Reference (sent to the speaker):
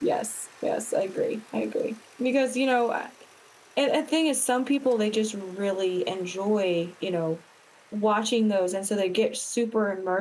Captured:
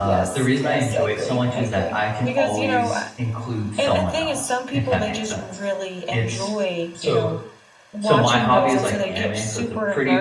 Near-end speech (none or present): present